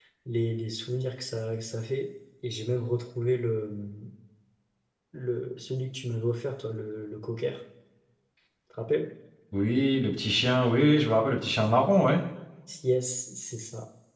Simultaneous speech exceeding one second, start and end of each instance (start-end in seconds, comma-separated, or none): none